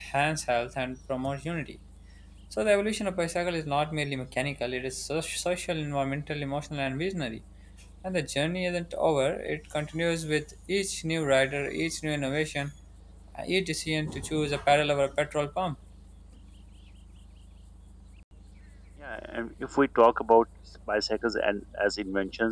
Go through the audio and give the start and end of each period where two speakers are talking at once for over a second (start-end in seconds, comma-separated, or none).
none